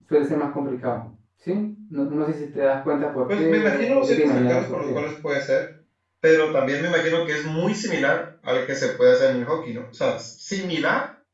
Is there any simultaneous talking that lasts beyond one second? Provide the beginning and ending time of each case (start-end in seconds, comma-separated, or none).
3.4-5.0